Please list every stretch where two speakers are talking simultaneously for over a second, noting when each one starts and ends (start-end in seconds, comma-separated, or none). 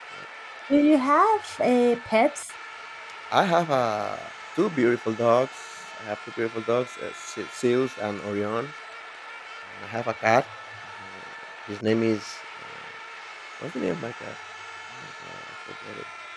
none